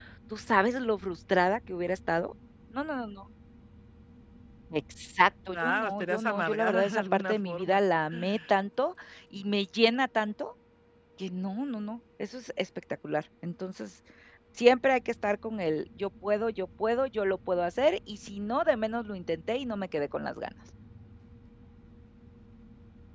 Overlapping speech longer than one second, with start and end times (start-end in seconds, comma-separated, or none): 5.5-7.8